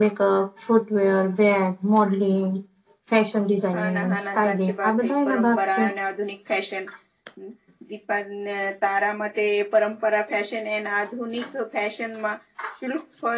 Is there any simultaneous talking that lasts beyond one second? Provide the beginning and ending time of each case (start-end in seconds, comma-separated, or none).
3.7-5.8